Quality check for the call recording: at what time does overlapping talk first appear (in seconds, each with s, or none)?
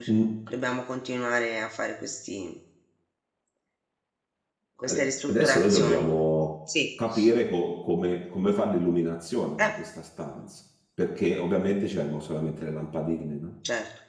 4.9 s